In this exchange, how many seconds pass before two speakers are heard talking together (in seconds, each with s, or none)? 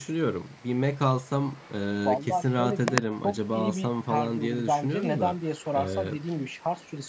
2.1 s